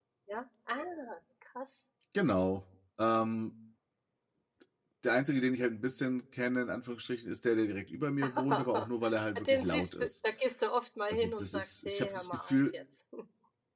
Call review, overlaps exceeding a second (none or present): present